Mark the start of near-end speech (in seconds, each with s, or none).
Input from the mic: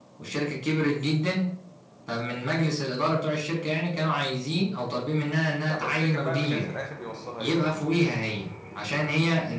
5.6 s